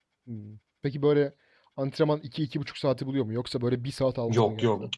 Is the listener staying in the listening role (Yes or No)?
No